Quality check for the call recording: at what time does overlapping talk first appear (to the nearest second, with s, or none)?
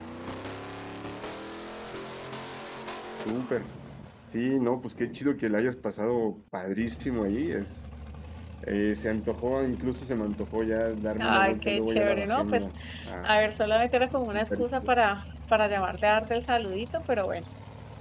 11 s